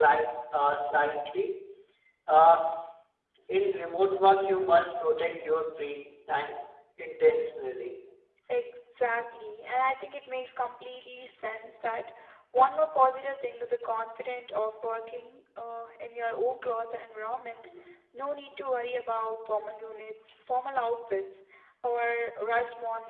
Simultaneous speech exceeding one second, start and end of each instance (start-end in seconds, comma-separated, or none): none